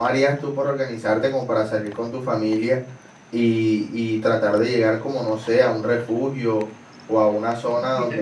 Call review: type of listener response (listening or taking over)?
taking over